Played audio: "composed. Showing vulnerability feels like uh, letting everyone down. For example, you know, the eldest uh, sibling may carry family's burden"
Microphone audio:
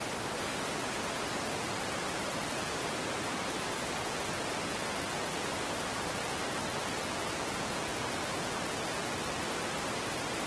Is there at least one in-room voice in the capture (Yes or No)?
No